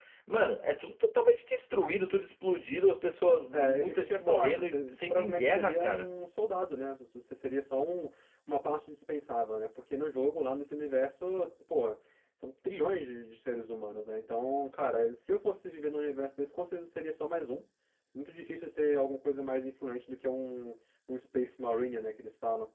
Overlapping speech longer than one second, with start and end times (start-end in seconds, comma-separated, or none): 3.5-6.1